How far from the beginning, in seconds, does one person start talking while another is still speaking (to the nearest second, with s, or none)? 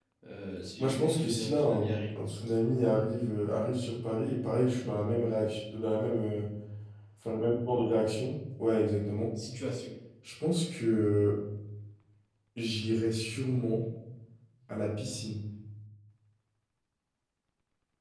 1 s